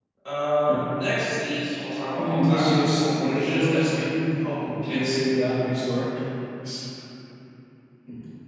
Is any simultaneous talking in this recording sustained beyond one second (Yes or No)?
Yes